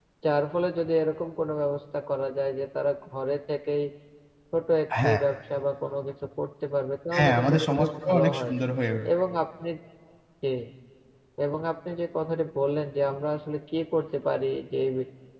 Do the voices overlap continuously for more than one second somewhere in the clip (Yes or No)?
Yes